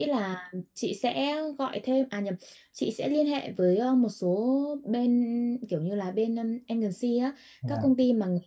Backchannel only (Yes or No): Yes